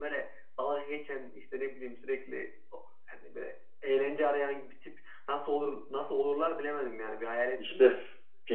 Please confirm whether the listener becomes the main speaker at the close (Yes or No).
Yes